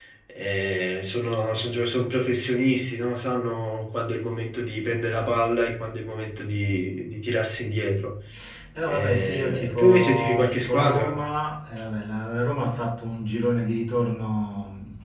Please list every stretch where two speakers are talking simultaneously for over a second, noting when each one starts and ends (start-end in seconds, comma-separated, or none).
8.9-11.2